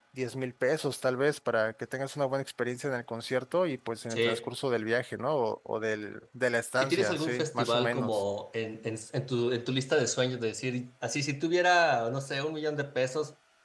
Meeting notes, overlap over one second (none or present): present